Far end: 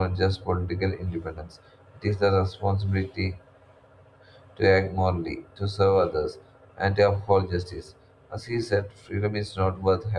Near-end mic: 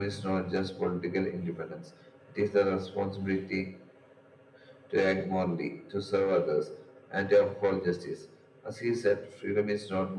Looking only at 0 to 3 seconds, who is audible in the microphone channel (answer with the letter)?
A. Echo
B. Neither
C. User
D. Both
A